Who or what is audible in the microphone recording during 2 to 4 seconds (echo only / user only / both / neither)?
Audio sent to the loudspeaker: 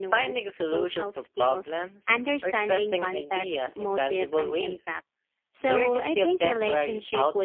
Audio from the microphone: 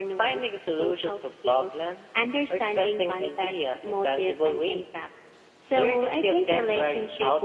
echo only